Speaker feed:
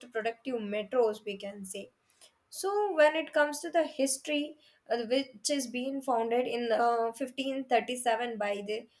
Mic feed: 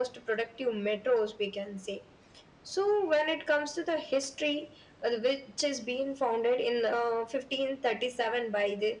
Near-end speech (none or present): none